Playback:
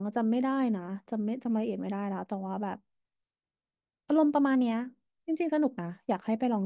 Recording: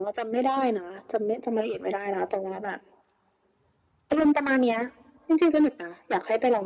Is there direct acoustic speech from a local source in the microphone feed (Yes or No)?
No